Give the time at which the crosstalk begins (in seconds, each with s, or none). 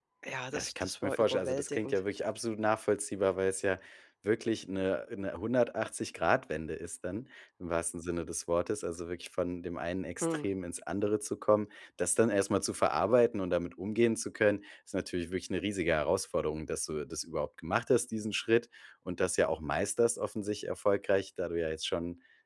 0.5 s